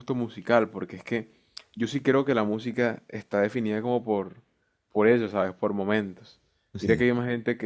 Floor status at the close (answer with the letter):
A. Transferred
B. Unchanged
B